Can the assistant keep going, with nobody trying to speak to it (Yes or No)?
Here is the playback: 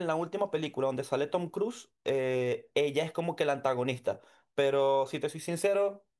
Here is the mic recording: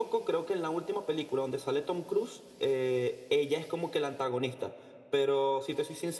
Yes